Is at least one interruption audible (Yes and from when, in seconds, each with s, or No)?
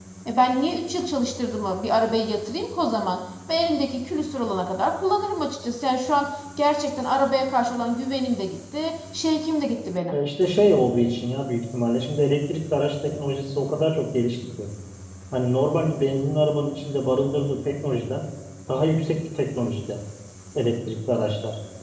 No